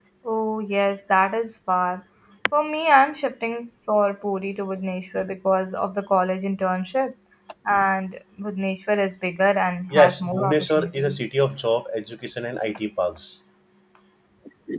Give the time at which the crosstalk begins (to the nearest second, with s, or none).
10 s